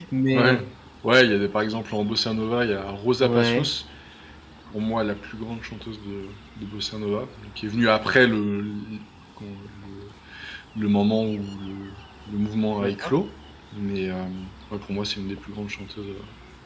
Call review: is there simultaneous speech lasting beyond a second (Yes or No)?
No